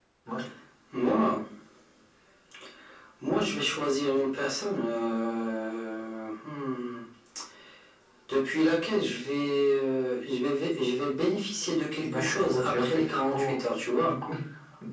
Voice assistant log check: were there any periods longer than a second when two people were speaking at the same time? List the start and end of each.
12.0-13.6

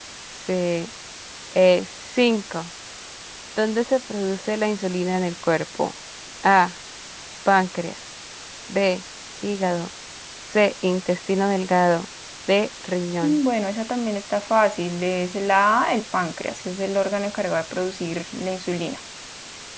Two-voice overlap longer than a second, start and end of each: none

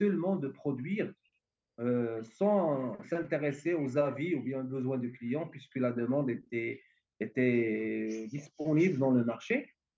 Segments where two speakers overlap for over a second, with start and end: none

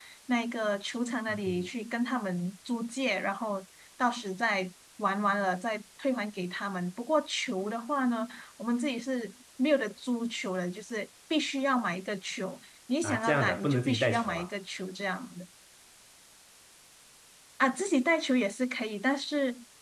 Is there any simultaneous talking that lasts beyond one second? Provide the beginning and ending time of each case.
13.0-14.5

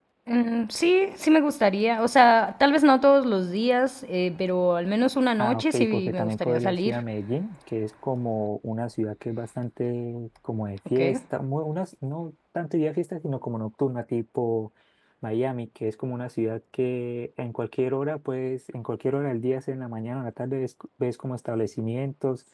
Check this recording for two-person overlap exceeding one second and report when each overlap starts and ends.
5.4-7.0

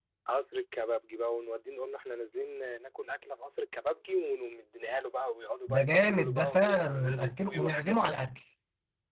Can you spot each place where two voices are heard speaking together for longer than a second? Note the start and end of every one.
5.7-8.2

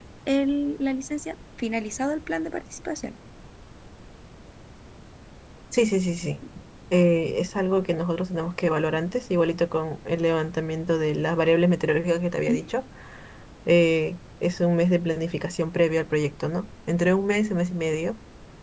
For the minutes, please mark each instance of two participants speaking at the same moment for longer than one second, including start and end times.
none

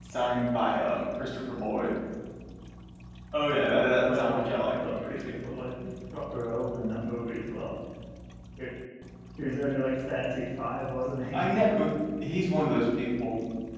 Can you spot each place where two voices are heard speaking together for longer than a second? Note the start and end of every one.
3.9-5.2

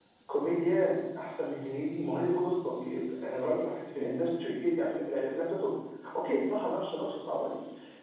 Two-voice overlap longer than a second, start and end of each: none

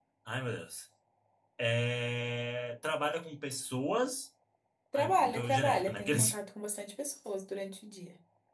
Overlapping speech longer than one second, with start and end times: 5.0-6.3

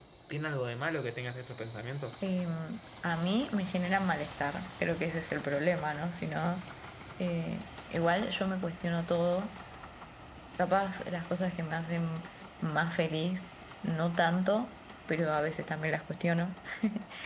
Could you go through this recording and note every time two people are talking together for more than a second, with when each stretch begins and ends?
none

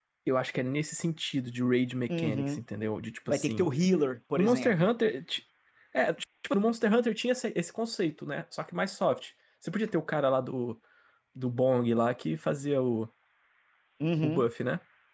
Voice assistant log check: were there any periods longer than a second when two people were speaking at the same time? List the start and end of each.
none

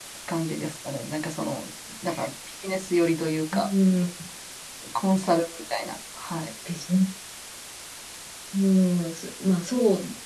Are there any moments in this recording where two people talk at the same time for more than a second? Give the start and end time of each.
none

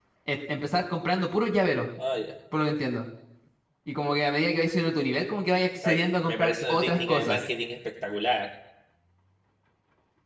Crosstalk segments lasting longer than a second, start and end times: 5.8-7.5

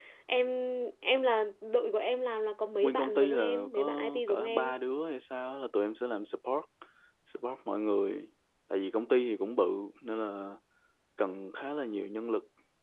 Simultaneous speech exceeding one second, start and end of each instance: 2.8-4.7

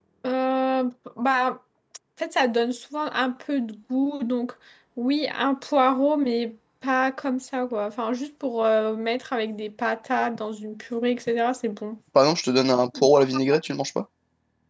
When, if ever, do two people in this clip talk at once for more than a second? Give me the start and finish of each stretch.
none

